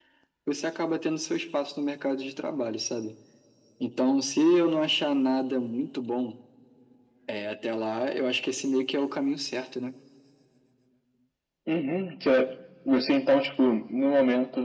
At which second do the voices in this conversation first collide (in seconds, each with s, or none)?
none